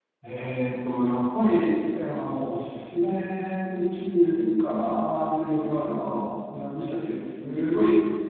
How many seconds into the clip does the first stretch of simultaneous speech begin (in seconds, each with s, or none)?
none